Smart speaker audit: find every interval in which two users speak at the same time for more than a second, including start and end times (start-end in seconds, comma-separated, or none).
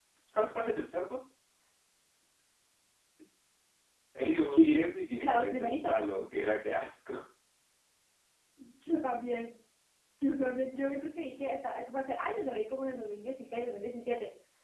4.5-6.0